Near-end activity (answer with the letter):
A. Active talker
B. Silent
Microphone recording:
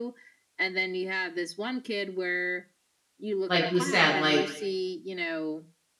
A